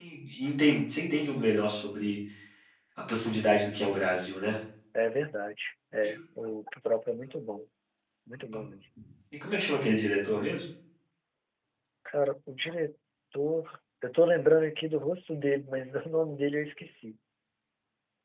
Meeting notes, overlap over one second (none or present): none